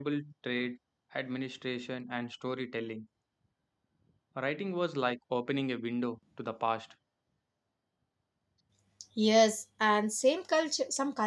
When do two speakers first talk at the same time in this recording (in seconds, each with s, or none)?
none